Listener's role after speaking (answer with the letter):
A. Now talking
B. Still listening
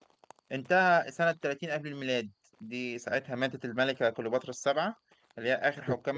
B